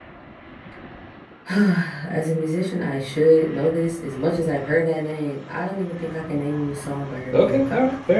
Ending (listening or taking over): taking over